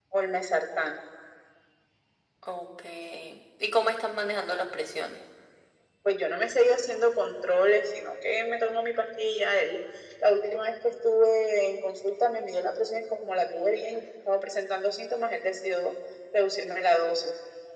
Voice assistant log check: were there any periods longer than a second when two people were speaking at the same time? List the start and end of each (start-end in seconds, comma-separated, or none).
none